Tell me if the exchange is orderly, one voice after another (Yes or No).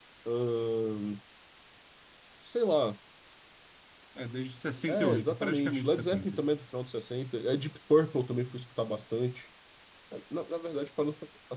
No